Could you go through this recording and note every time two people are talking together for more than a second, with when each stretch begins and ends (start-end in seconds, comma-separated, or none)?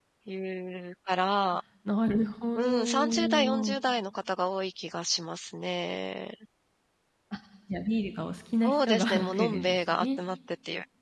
2.5-3.8, 8.6-10.2